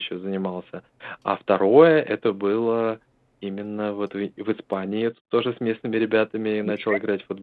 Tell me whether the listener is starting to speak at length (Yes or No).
No